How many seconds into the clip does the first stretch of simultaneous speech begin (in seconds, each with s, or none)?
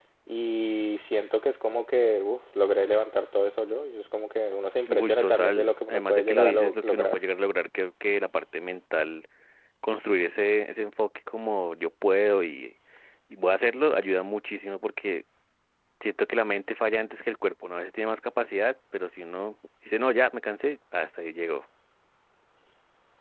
4.8 s